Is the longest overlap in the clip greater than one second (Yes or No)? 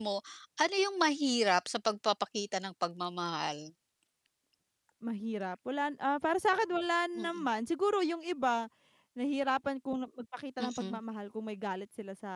No